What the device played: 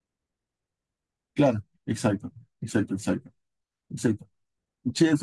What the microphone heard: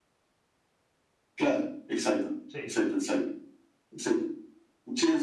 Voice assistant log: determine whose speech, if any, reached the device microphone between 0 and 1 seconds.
neither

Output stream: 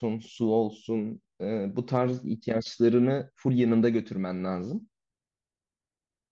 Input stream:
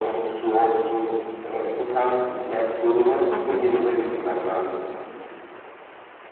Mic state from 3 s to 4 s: both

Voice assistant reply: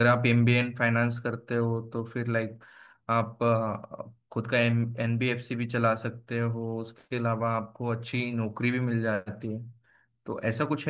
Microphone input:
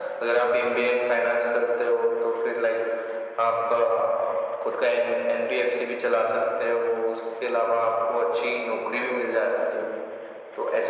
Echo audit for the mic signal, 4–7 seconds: echo only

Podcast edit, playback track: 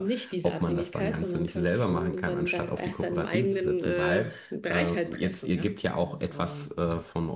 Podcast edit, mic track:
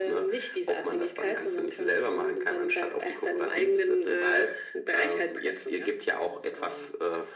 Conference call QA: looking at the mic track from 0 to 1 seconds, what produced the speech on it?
echo only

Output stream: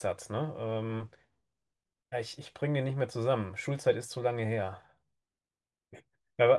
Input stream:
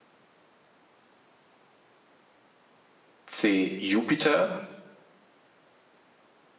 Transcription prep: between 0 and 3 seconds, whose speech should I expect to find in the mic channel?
neither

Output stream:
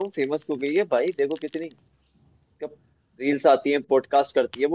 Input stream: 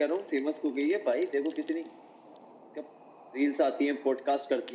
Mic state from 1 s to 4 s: echo only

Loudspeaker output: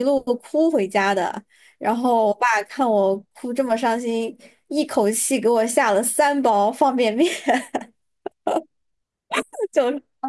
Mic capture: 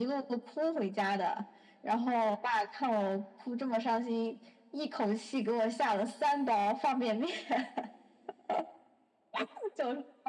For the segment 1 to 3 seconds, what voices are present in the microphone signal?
echo only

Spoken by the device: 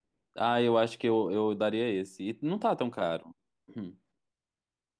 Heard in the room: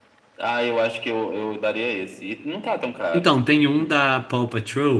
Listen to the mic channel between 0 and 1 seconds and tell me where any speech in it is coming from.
echo only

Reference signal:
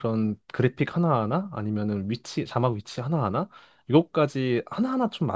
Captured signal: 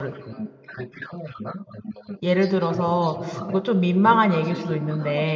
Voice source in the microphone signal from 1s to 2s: echo only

